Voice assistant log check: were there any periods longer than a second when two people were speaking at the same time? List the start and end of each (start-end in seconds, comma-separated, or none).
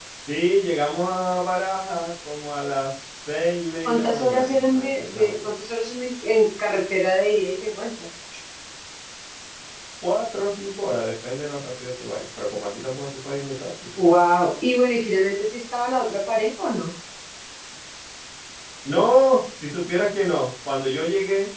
3.9-5.5